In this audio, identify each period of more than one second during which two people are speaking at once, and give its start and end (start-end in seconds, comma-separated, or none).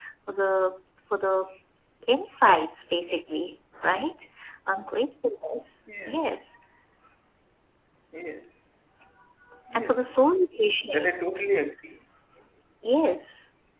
none